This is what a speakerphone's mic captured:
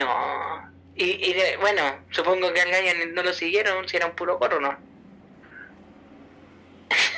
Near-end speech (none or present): none